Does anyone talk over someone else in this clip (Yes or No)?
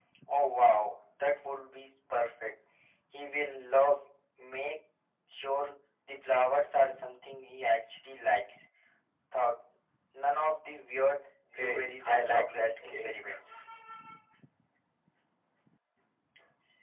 Yes